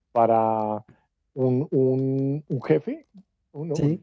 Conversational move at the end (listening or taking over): listening